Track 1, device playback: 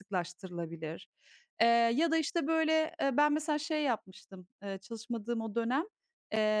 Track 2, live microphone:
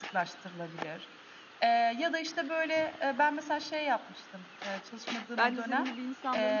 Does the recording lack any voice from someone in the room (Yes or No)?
No